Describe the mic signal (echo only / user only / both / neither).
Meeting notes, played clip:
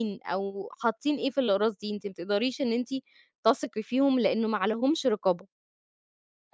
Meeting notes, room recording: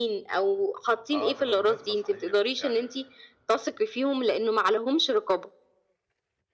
both